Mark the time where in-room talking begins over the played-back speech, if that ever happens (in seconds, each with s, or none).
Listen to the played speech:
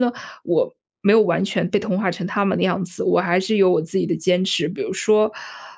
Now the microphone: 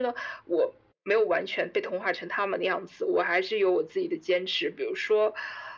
none